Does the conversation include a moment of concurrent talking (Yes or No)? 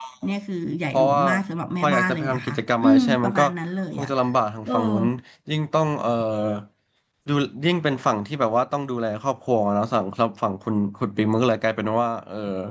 Yes